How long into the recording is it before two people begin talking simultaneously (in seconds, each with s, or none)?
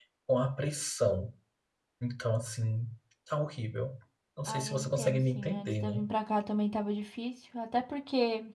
4.5 s